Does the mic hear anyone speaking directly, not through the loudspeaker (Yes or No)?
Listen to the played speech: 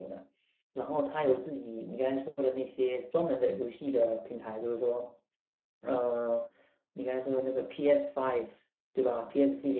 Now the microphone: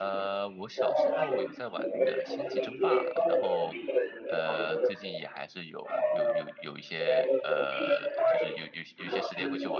Yes